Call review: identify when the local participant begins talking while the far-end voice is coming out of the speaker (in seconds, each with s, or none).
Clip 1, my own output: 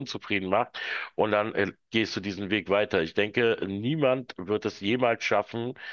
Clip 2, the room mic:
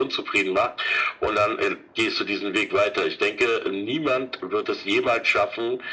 none